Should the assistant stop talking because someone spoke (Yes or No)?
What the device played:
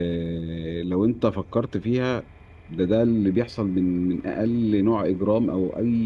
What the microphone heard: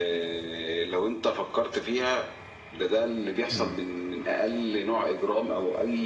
Yes